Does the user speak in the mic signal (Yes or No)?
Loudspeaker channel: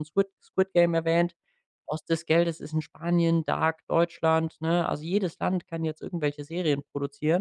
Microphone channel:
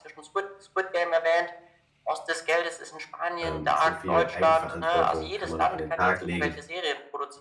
Yes